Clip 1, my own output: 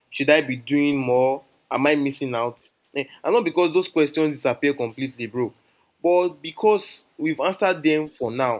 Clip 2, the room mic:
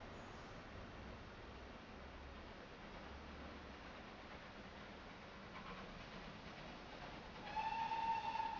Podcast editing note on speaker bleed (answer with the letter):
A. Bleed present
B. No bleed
B